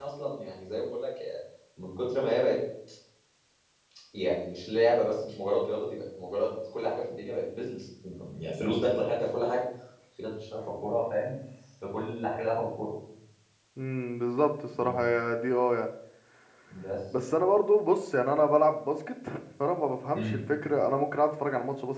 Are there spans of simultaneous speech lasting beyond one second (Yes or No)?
No